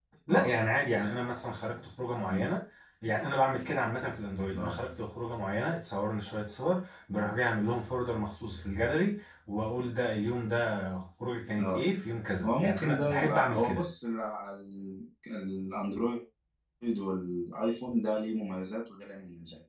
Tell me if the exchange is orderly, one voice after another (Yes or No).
No